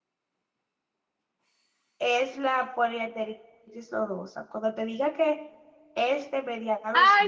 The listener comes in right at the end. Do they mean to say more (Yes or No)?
Yes